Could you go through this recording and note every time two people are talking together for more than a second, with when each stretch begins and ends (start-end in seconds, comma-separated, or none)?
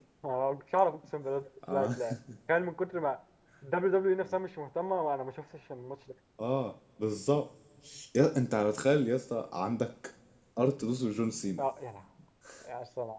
none